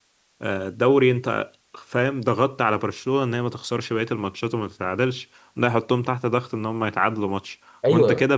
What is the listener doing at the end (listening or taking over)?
listening